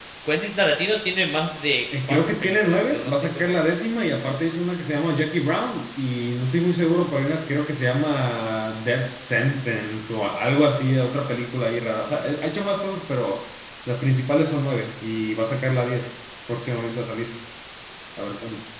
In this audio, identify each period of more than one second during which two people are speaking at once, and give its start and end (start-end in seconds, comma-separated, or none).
2.0-3.6